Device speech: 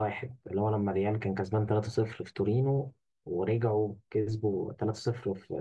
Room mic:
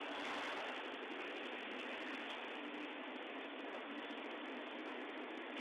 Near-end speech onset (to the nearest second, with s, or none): none